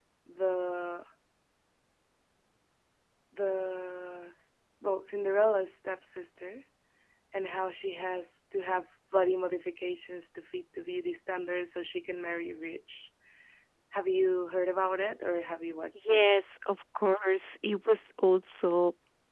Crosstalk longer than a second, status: none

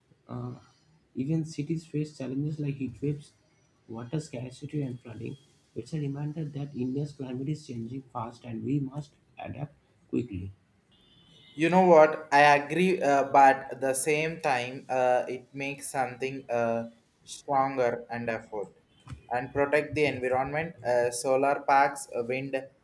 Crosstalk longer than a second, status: none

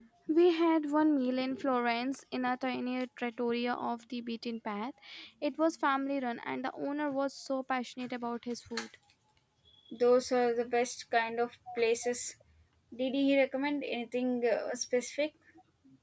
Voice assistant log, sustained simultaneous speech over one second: none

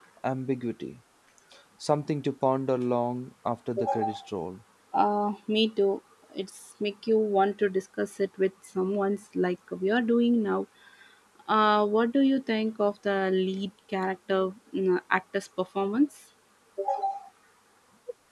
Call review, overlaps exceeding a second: none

